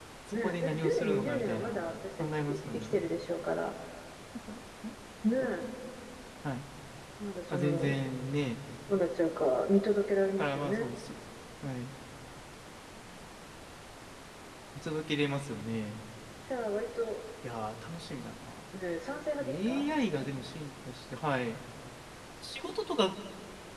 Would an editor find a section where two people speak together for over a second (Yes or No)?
Yes